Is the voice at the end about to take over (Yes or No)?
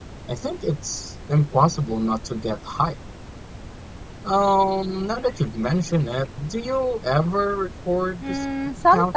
Yes